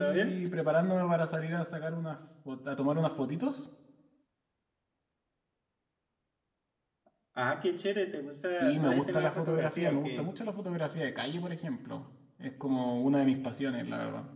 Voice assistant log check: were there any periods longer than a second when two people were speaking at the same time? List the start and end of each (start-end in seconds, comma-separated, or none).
8.5-10.3